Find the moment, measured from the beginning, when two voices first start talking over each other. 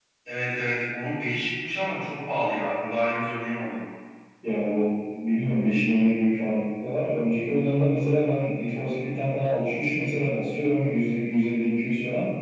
none

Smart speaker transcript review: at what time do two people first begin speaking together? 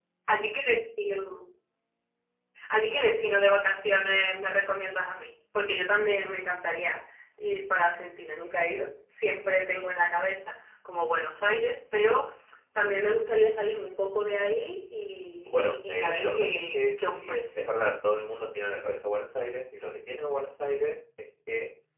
15 s

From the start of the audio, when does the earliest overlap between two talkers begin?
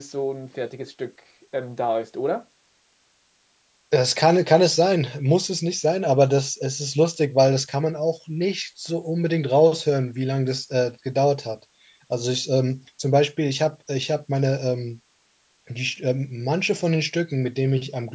none

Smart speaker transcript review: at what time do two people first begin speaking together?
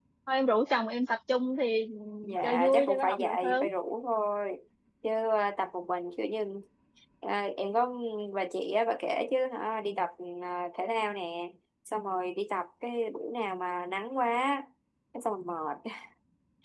2 s

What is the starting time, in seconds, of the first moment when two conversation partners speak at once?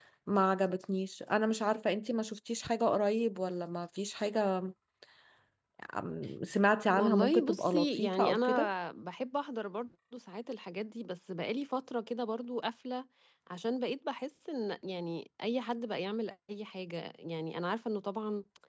7 s

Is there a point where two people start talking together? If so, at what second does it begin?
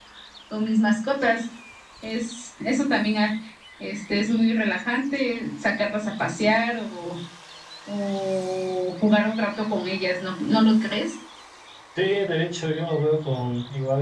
none

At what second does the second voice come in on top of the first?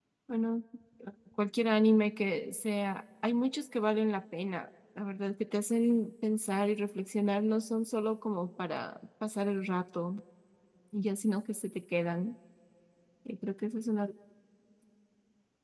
none

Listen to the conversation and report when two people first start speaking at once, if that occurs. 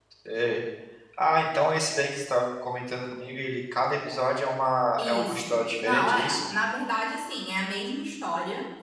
5 s

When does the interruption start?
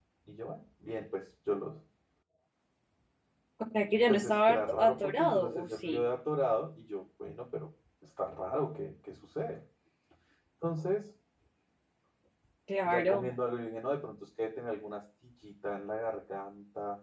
4 s

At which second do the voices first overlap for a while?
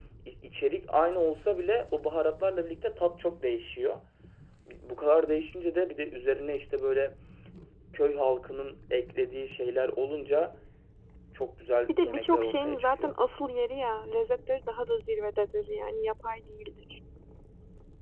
12 s

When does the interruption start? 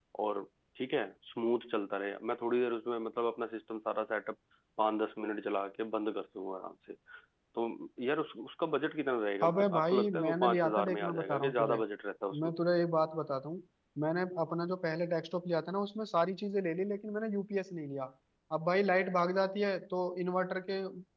9 s

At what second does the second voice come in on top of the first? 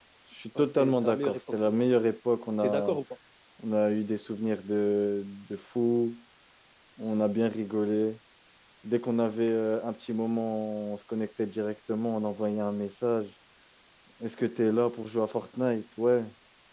1 s

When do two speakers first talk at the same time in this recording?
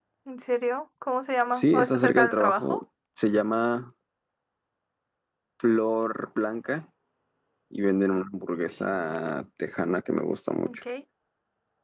2 s

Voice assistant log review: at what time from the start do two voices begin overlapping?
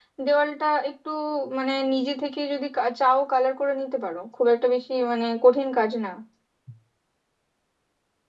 none

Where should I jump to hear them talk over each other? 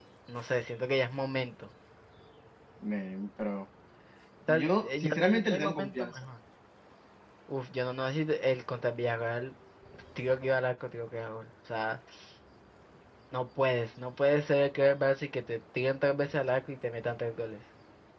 4 s

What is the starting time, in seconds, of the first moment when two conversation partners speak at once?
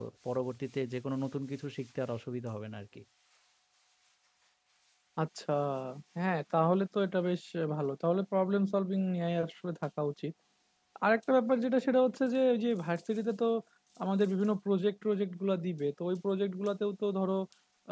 none

